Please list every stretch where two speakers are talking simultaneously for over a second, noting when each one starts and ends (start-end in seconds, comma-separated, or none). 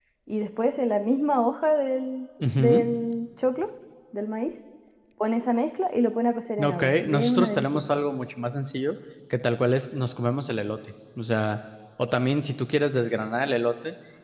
6.6-7.8